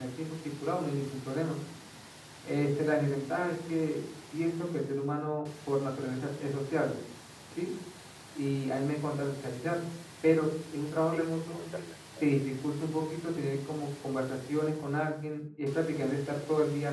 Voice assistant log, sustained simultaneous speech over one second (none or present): none